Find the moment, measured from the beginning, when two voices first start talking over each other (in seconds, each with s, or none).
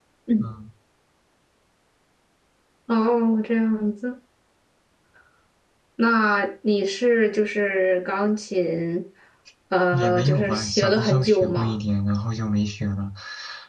9.9 s